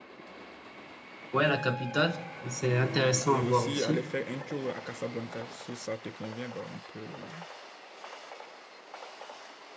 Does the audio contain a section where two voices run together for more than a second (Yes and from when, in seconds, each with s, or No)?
Yes, from 2.6 s